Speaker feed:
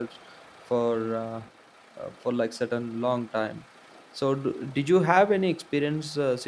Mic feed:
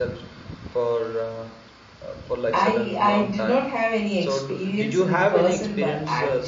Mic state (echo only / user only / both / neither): both